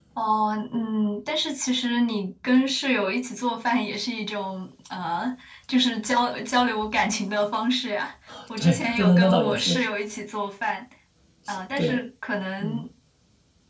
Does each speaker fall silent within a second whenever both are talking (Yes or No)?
No